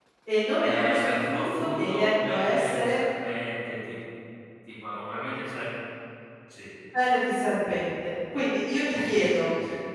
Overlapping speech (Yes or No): Yes